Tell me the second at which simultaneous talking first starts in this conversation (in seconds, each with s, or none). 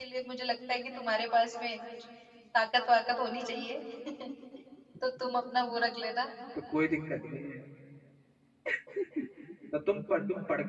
none